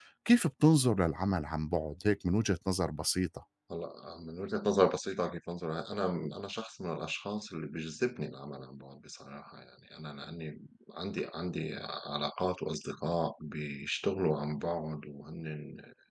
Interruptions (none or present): none